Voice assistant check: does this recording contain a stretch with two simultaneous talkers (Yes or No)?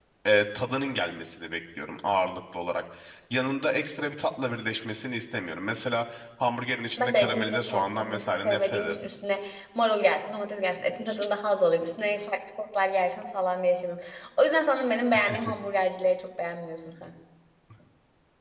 Yes